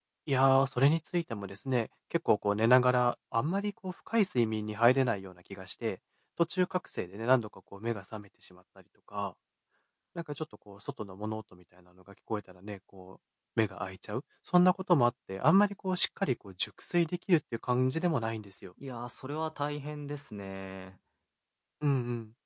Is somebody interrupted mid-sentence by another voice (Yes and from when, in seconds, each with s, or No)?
No